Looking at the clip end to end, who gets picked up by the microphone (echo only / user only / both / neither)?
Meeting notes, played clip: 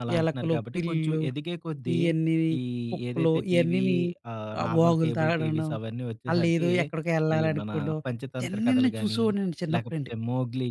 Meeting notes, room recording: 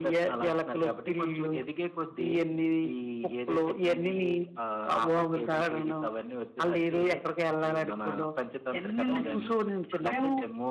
both